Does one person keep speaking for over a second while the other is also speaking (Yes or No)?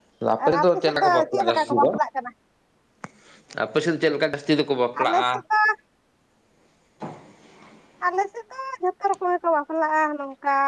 Yes